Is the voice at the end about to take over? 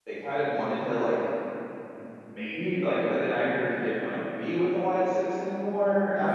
Yes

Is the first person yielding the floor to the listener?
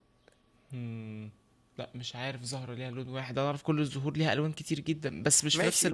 Yes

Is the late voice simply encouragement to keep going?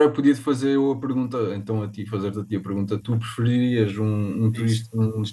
Yes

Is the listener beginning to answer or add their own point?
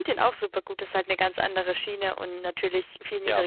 No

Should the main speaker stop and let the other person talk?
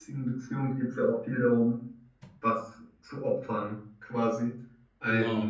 No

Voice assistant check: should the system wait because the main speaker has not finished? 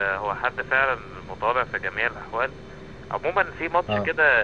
Yes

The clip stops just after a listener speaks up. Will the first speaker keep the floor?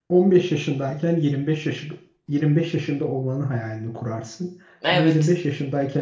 Yes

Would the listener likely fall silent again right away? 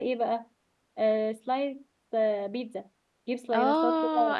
No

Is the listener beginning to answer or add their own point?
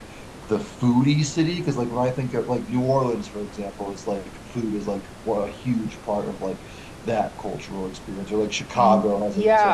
Yes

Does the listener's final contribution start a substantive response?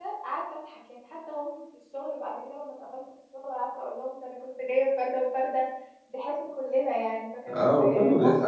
Yes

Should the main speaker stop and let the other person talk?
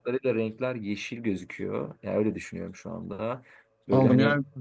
Yes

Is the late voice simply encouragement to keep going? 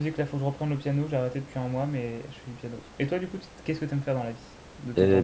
No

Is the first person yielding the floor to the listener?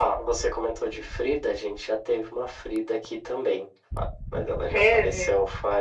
No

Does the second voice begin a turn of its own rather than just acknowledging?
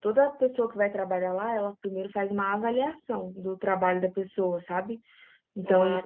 No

